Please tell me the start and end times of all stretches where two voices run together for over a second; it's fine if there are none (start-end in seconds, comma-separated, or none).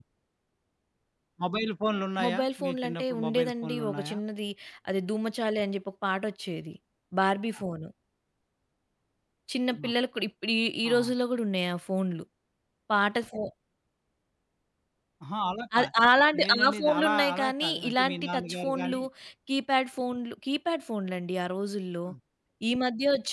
2.2-4.2, 16.4-19.0